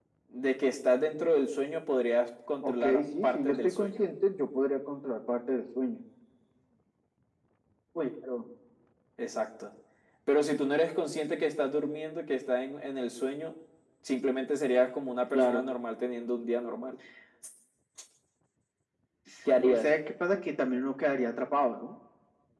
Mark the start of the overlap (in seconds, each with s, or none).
2.6 s